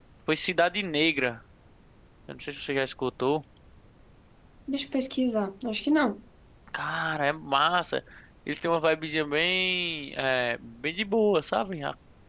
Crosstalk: none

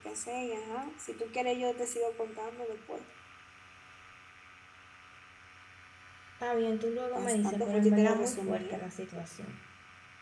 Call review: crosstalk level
present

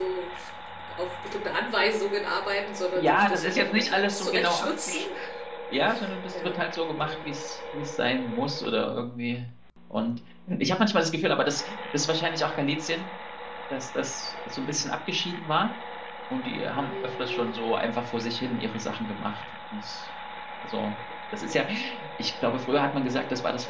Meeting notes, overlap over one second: present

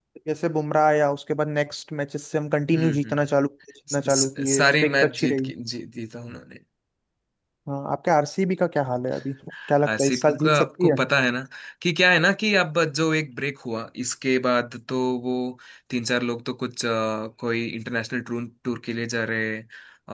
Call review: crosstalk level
present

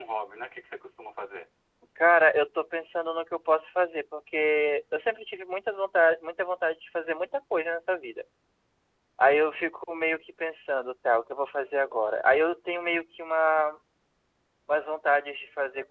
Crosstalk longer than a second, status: none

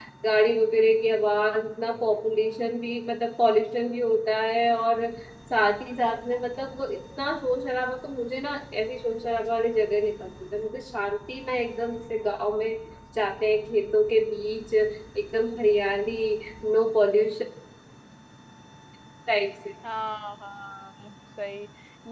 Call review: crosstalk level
none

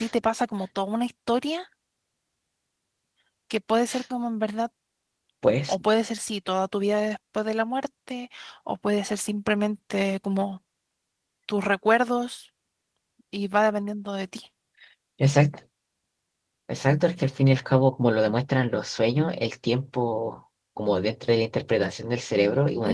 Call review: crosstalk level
none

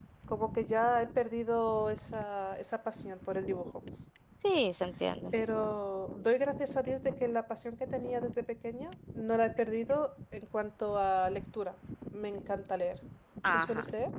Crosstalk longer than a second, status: none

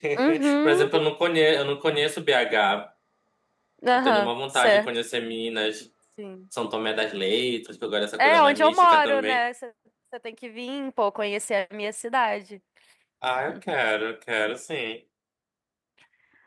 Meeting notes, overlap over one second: present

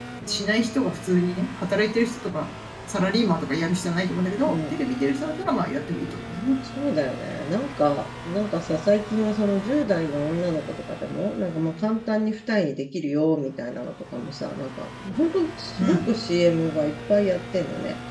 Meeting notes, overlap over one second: none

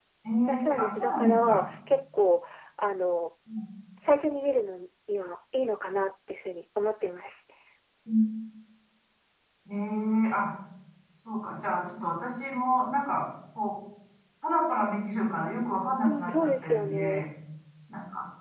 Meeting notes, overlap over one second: present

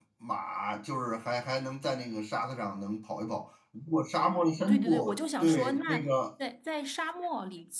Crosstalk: present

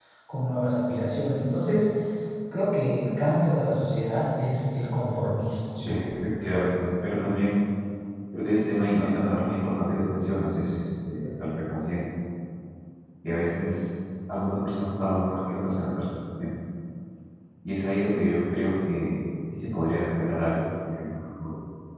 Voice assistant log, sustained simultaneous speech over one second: none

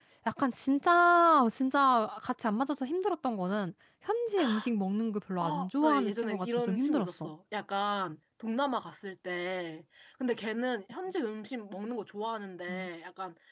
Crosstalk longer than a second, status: present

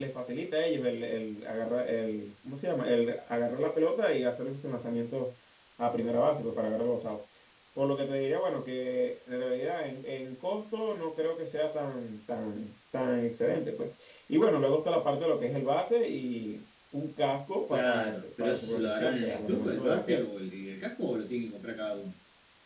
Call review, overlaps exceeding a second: present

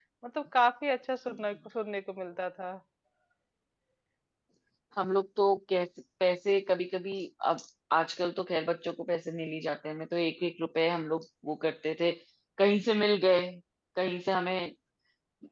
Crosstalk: none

